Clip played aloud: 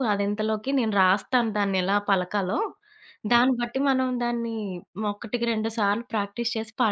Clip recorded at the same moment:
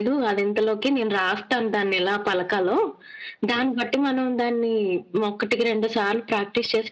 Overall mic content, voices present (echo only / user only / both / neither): echo only